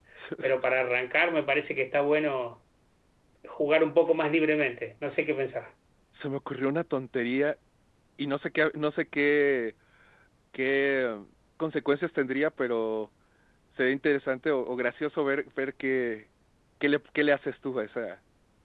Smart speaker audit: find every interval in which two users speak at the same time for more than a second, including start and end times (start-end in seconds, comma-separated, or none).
none